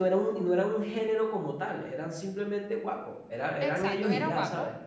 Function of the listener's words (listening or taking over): taking over